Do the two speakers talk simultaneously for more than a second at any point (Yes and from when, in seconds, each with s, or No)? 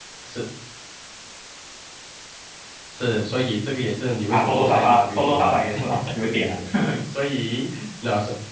Yes, from 4.3 s